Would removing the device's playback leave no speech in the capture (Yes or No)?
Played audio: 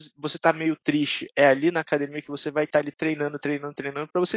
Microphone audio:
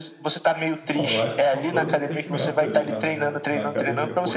No